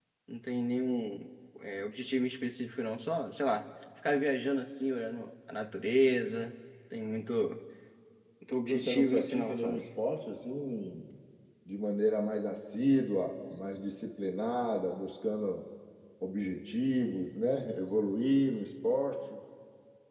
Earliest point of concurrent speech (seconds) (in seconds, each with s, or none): 8.6 s